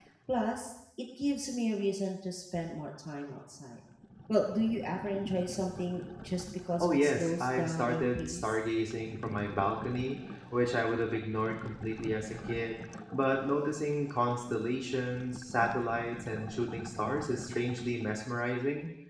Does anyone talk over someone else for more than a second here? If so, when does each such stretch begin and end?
6.8-8.6

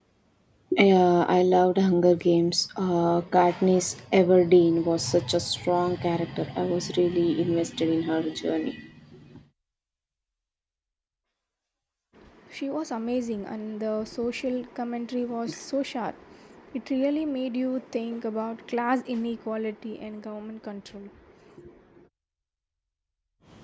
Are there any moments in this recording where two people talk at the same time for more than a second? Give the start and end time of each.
none

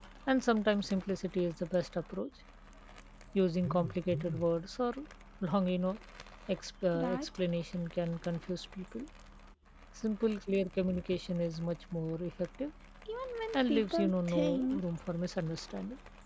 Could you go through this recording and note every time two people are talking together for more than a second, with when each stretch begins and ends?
13.5-14.8

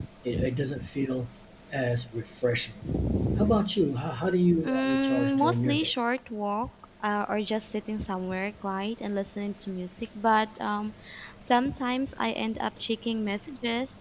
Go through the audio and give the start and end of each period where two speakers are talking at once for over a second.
4.6-5.9

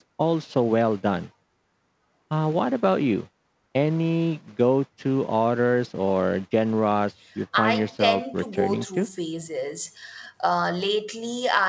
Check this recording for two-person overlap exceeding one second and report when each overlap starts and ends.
7.6-9.1

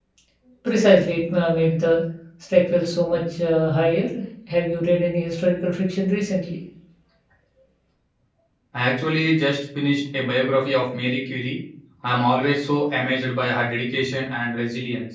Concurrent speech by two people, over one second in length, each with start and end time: none

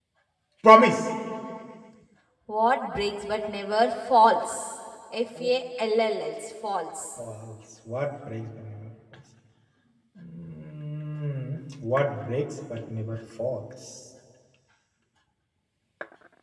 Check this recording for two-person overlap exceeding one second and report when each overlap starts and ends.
none

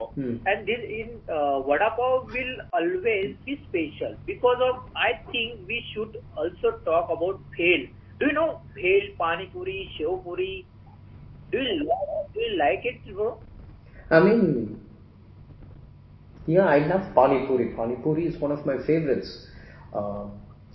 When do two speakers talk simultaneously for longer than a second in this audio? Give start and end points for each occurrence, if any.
none

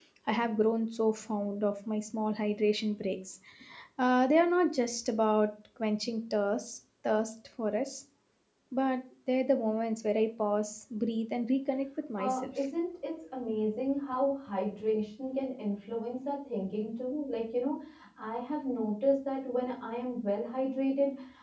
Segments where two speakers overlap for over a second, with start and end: none

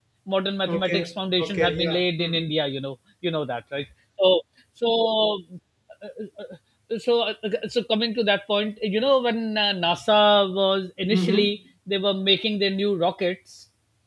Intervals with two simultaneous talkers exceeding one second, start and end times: 0.7-2.5

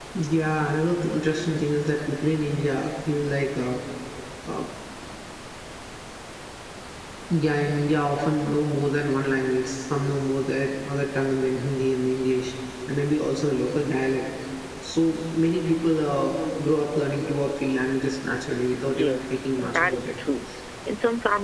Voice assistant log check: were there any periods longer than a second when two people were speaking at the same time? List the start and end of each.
18.8-20.1

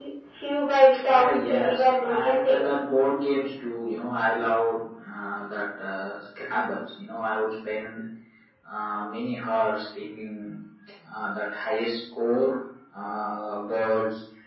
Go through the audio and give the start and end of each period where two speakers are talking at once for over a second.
1.1-2.8

